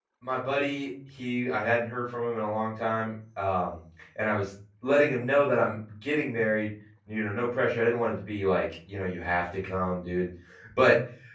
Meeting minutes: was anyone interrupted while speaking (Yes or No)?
No